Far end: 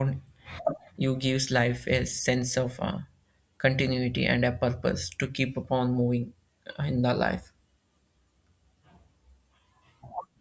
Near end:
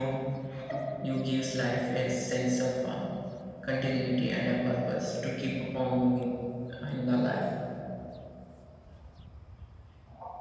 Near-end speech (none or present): none